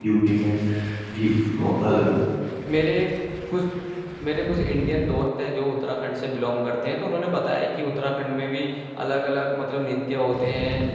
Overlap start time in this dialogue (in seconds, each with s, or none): none